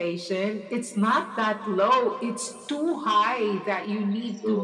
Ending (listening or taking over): listening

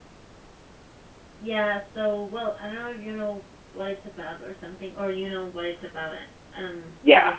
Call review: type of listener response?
taking over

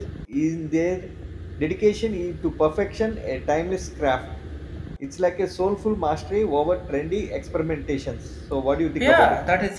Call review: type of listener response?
taking over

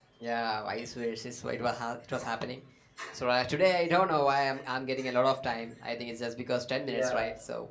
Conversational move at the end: taking over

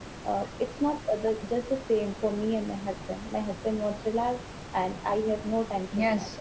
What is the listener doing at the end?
taking over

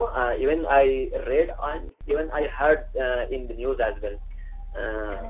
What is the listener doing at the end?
listening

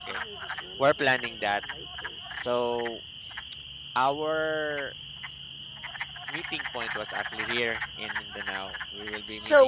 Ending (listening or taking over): taking over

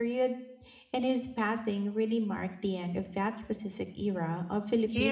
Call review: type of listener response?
taking over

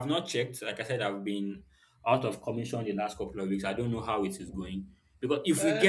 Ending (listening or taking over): taking over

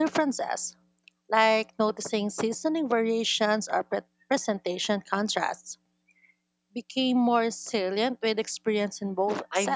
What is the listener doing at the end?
taking over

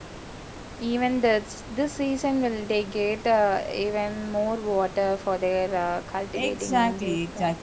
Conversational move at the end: taking over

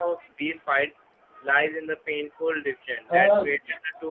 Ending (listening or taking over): listening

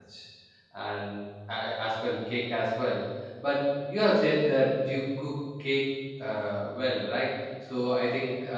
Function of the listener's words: listening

